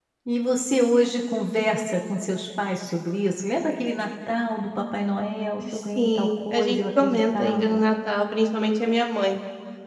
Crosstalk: present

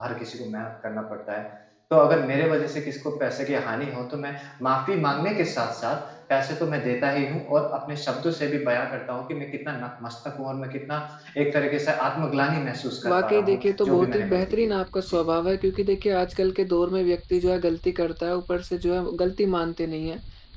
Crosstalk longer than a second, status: present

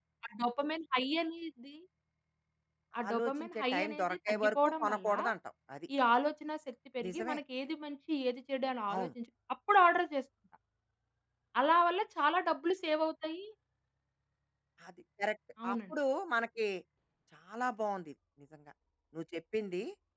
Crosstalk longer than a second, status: present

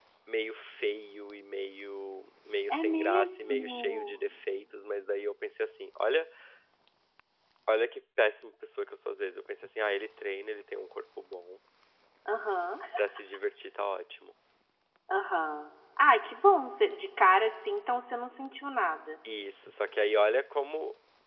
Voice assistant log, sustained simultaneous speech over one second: present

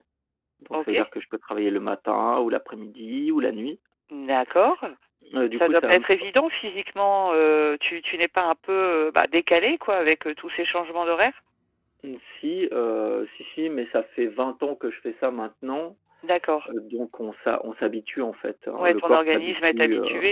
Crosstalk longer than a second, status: present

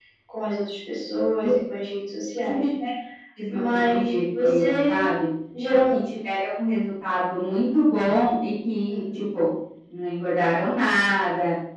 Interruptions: present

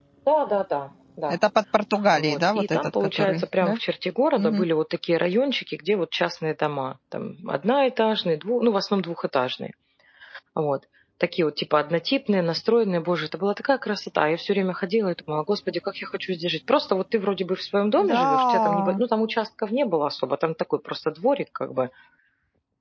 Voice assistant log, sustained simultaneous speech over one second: present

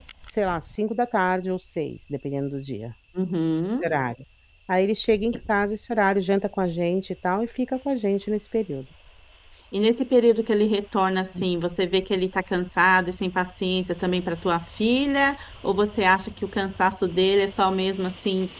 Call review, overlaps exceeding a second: none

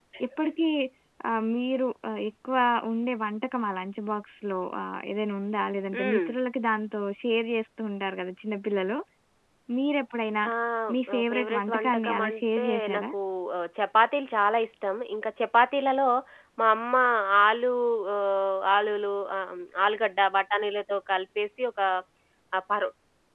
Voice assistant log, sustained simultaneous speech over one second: present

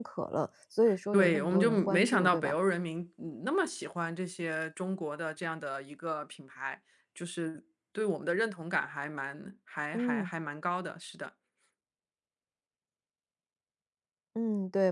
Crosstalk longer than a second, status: present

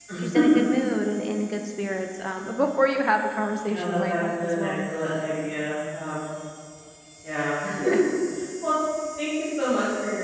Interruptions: present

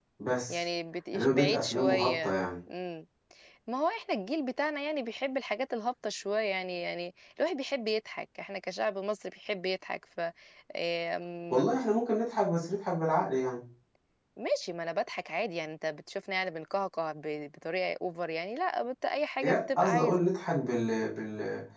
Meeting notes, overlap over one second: present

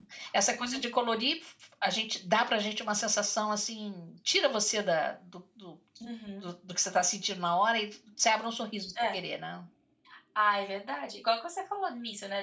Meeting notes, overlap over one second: none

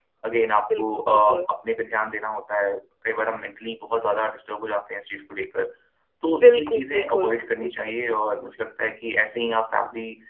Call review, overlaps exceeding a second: present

